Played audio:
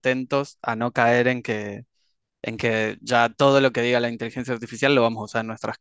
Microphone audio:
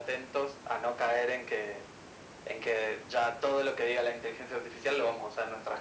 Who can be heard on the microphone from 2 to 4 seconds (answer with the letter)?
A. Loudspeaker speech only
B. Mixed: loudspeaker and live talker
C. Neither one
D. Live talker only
A